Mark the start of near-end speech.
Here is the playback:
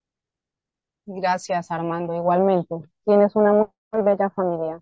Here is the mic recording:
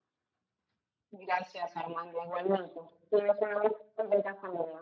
none

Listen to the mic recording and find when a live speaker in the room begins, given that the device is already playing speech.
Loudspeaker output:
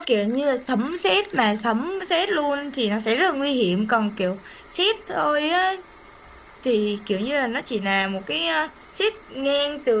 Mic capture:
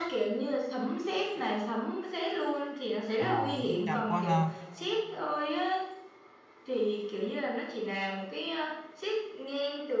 3.2 s

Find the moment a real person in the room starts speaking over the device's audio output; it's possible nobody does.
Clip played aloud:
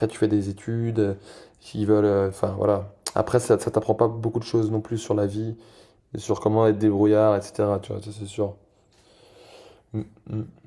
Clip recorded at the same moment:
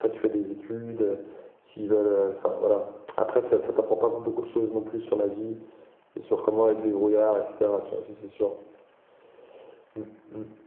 none

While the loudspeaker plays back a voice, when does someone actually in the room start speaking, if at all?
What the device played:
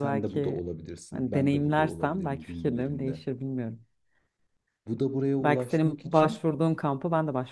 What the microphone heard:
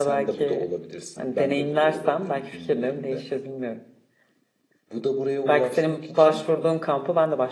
none

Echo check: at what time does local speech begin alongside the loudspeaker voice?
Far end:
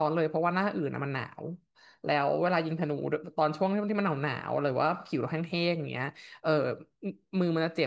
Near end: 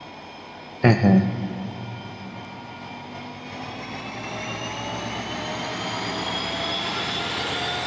0.8 s

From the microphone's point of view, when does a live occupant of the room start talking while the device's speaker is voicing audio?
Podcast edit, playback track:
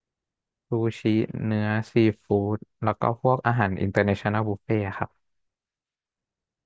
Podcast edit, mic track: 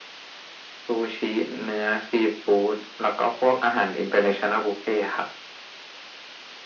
none

